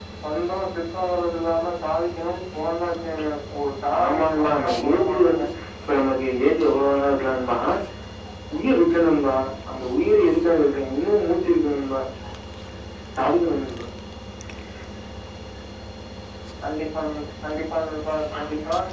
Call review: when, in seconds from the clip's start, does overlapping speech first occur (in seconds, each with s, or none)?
3.9 s